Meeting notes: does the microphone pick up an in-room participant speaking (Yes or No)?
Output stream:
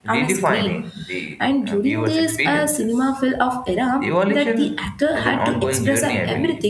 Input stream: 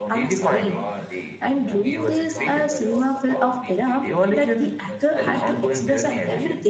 Yes